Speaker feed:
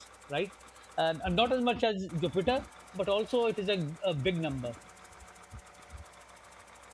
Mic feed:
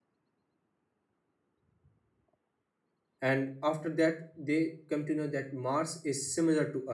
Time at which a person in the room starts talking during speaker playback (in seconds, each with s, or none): 3.2 s